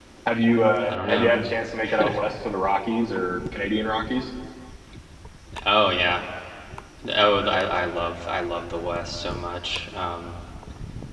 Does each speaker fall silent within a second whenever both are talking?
Yes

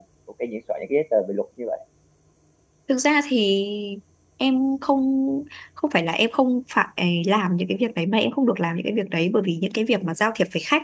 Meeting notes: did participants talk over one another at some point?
No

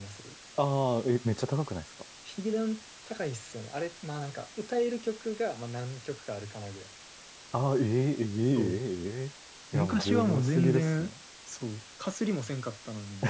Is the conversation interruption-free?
No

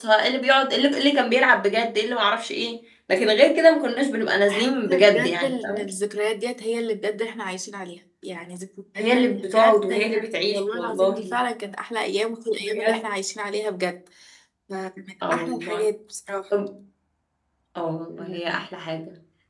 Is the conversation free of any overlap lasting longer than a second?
No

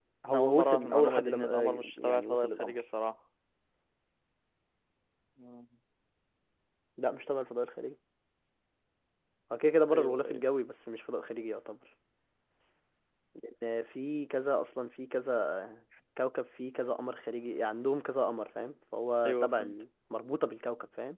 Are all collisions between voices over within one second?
No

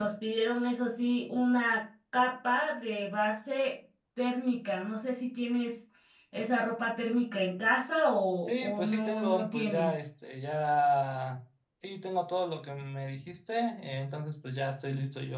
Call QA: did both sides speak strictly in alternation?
No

